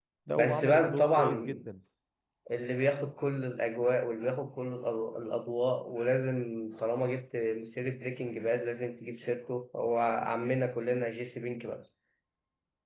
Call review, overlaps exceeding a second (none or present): present